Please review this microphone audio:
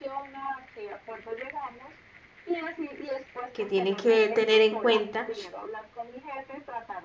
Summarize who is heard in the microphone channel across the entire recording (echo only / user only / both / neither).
both